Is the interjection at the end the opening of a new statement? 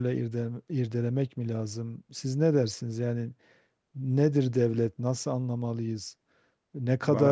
No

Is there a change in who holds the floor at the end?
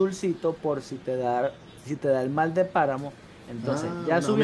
Yes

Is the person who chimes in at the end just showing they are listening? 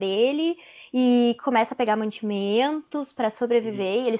Yes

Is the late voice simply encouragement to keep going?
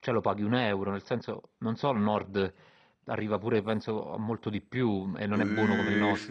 No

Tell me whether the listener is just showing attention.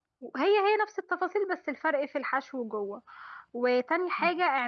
Yes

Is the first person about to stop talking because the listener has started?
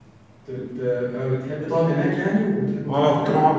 Yes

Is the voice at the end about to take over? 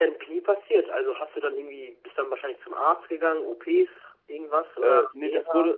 Yes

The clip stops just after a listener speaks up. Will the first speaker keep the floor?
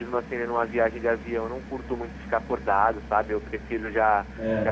Yes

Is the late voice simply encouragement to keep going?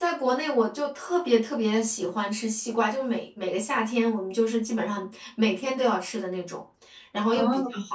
Yes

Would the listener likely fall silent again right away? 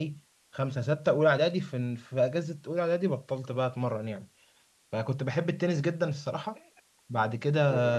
Yes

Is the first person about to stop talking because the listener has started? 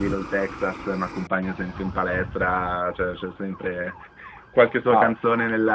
No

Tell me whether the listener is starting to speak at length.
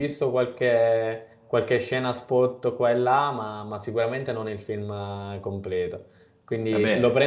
No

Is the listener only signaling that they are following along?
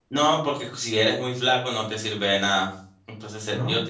Yes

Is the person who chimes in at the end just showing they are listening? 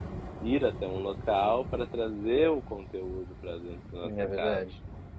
No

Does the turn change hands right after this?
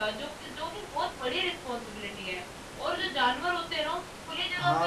No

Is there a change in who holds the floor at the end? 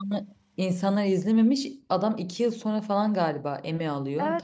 Yes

